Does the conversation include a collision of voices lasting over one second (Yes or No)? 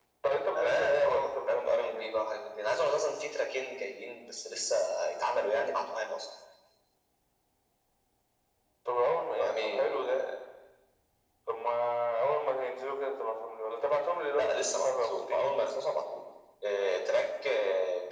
Yes